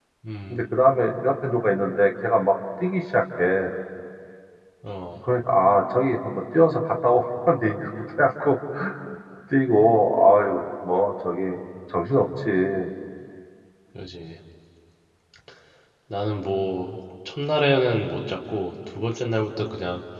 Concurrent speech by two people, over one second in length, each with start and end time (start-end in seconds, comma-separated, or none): none